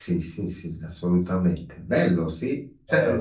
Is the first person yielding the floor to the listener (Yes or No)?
No